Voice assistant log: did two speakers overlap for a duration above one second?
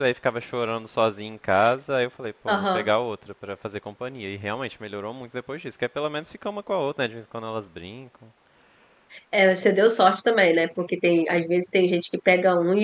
No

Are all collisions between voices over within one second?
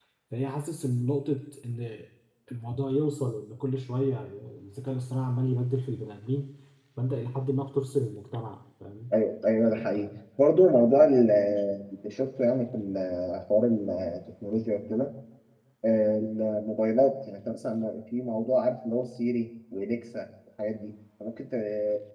Yes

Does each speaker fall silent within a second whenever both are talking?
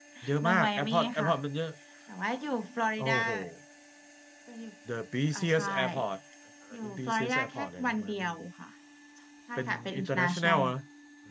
No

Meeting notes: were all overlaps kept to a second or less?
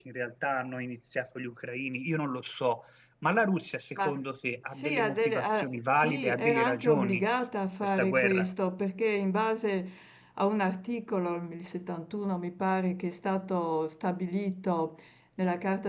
No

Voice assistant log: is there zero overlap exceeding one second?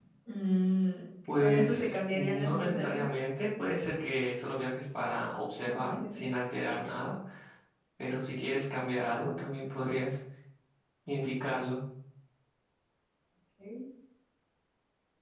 No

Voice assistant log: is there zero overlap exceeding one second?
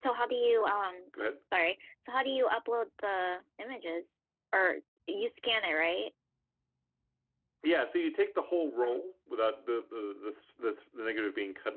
Yes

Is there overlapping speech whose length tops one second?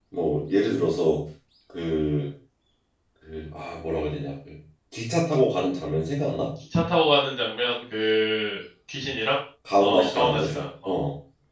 Yes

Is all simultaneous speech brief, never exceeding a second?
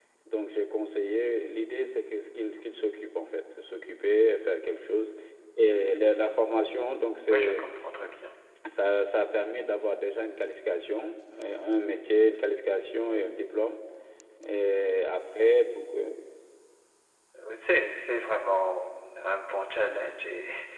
Yes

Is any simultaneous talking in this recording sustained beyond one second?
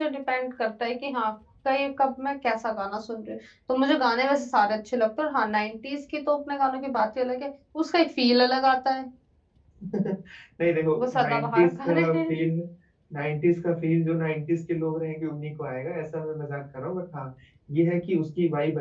Yes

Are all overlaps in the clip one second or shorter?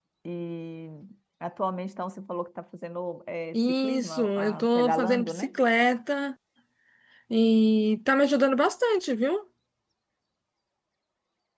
No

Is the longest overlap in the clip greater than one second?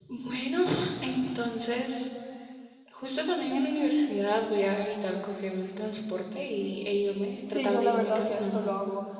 Yes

